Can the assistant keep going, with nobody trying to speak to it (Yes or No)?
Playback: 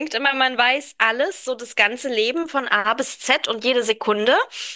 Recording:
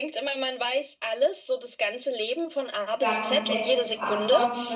No